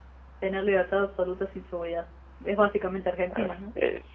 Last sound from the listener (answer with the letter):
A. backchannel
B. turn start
B